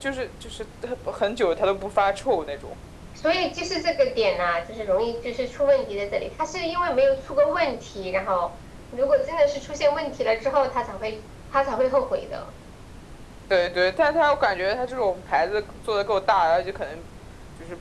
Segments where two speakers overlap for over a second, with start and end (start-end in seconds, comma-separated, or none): none